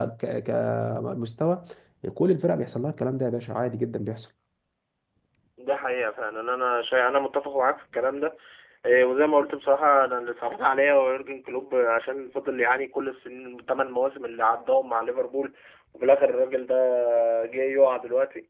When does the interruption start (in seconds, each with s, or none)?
none